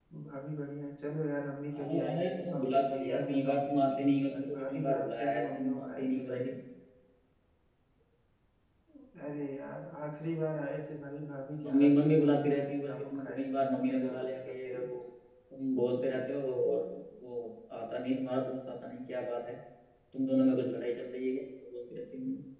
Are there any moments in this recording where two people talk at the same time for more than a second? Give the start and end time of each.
1.8-6.5, 11.6-14.9

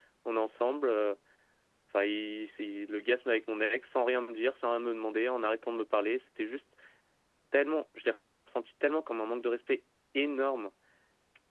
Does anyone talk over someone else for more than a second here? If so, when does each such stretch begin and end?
none

